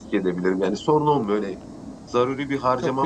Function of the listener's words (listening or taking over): taking over